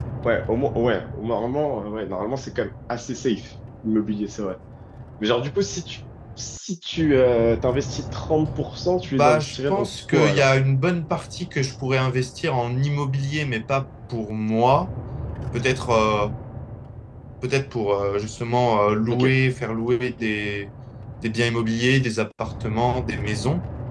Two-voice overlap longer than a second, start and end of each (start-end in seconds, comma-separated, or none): 9.0-10.5